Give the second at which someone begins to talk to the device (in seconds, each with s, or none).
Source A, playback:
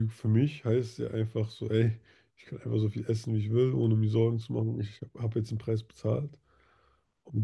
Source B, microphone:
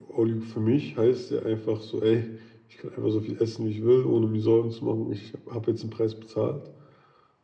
none